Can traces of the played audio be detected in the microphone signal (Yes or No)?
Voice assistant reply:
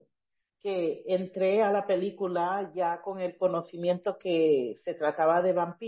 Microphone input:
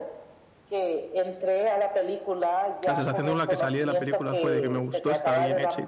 Yes